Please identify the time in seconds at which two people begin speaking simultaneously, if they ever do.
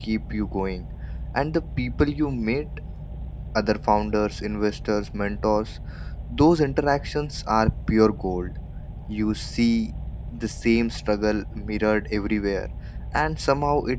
none

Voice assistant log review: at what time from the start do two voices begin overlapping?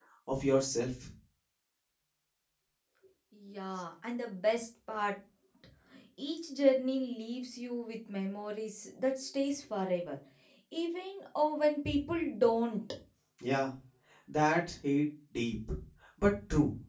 none

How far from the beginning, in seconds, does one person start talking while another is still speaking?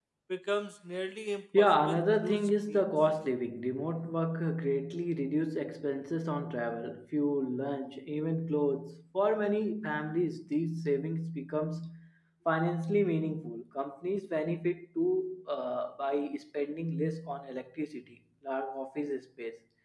1.5 s

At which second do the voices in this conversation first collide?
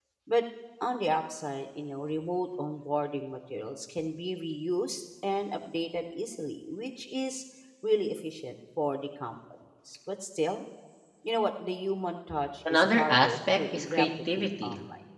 12.7 s

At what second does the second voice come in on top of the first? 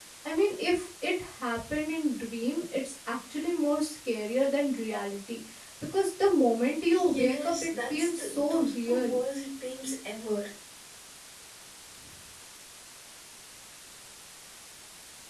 6.9 s

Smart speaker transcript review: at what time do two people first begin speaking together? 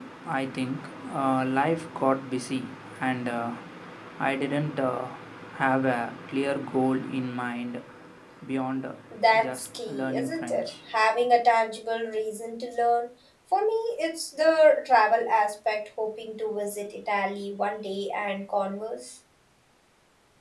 9.4 s

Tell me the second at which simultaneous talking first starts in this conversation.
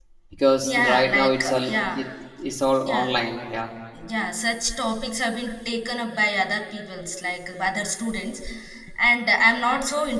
0.6 s

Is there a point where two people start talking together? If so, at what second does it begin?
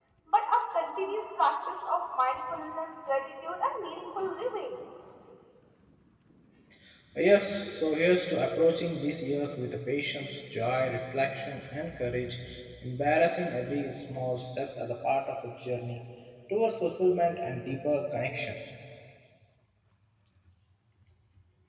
none

